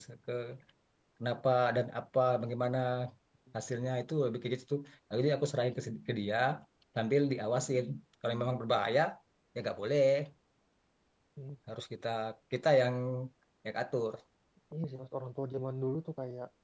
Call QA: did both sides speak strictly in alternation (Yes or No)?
Yes